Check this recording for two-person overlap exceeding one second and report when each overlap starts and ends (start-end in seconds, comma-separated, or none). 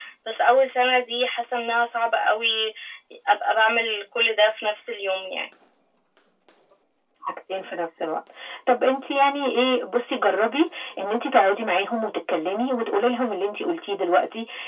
none